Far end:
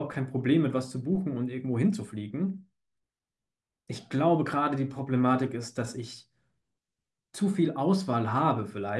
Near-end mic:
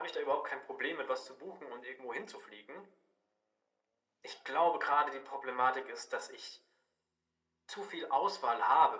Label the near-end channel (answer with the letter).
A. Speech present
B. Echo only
B